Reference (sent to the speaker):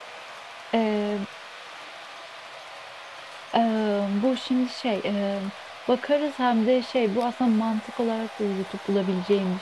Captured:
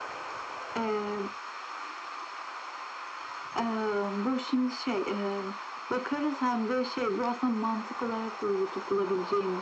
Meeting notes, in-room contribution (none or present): none